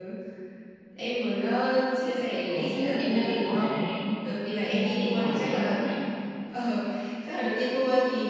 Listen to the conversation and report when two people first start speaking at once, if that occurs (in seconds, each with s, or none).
2.5 s